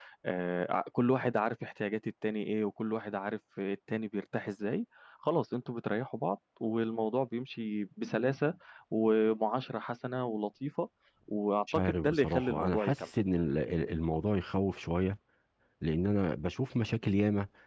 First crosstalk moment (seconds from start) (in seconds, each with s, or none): 11.7 s